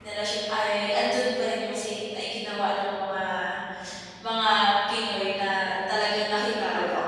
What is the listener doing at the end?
taking over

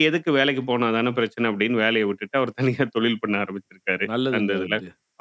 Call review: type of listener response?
taking over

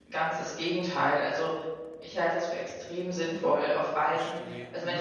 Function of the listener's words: listening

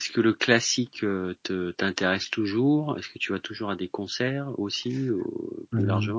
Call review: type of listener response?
taking over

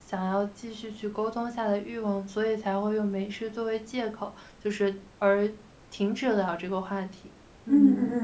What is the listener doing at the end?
taking over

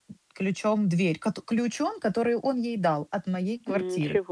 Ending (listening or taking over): taking over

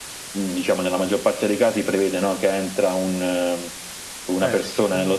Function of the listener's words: listening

